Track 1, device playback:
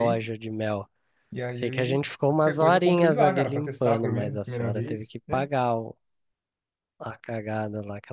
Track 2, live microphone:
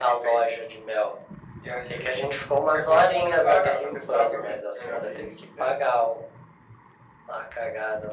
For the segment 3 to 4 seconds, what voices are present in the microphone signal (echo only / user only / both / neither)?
echo only